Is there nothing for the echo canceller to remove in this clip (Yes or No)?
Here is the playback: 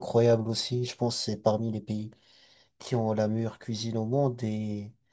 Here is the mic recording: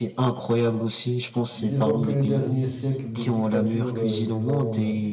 No